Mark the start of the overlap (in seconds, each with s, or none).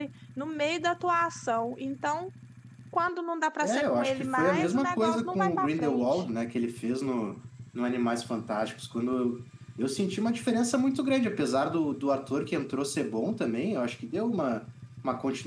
3.6 s